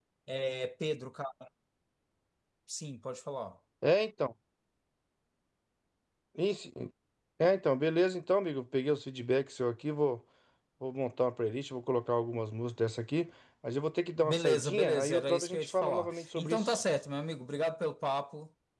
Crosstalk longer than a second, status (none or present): present